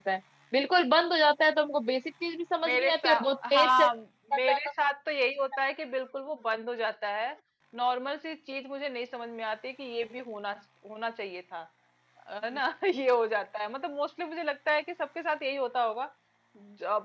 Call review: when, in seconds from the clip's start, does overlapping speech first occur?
2.6 s

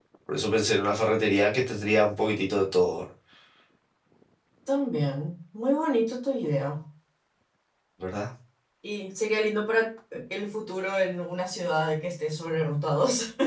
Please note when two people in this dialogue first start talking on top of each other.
none

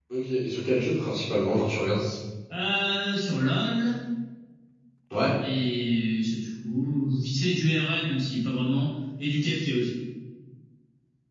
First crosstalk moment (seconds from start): none

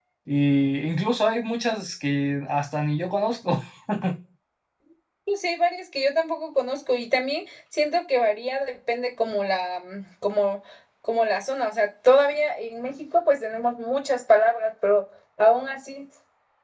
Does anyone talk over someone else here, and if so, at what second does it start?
none

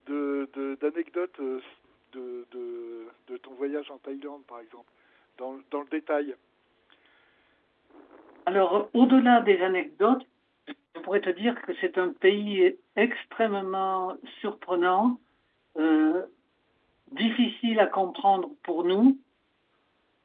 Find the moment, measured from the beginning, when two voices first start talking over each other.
none

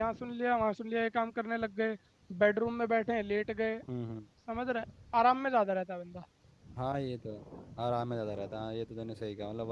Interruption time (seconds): none

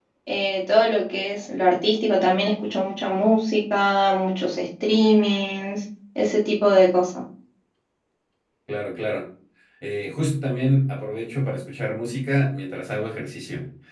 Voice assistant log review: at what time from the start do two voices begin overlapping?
none

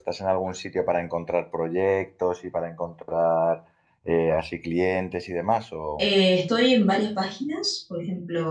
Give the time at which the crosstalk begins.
none

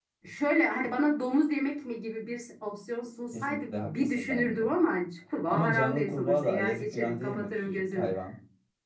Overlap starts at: 3.3 s

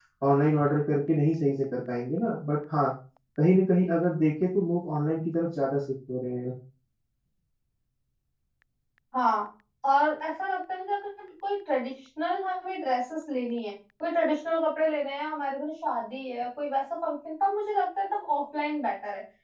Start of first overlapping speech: none

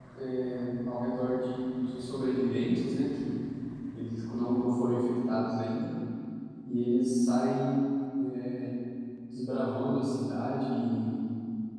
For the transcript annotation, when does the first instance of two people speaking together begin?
none

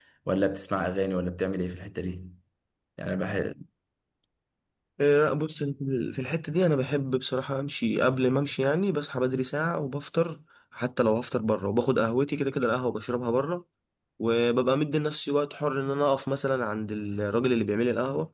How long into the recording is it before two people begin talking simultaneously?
none

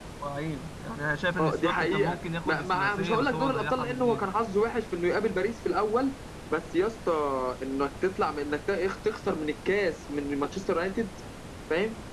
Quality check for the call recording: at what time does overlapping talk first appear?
1.4 s

